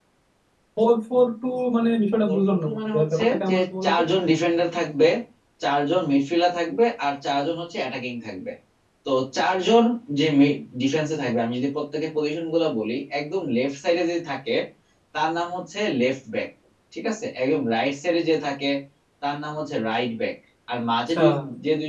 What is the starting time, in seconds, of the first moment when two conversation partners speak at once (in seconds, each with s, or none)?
2.2 s